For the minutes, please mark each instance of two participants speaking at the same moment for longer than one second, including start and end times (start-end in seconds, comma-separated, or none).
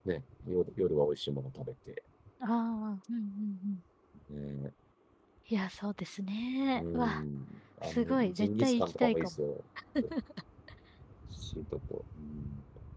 7.8-9.3